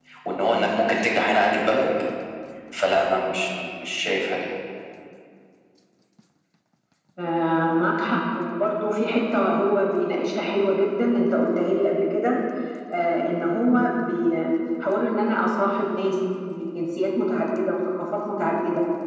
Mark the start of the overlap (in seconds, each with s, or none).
none